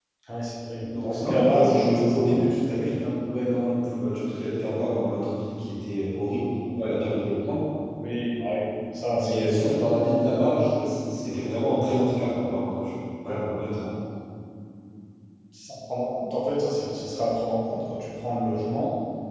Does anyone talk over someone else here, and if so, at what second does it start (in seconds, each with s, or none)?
0.9 s